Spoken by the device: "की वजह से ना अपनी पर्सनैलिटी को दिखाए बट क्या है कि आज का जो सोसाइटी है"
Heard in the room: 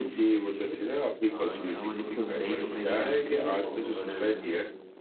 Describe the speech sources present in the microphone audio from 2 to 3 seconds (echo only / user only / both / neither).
both